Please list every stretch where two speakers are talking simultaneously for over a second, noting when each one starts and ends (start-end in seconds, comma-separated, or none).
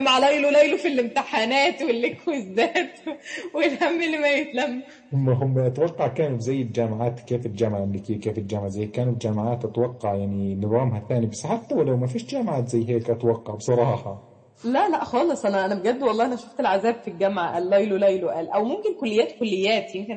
none